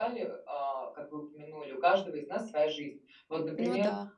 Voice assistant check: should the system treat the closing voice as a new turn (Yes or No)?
No